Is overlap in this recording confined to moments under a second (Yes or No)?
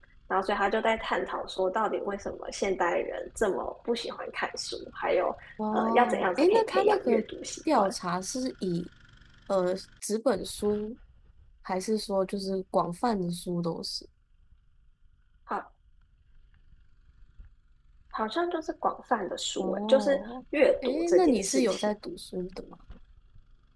No